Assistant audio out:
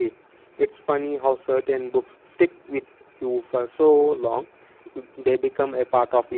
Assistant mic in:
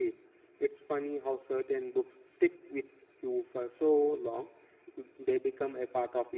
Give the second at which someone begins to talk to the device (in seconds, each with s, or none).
none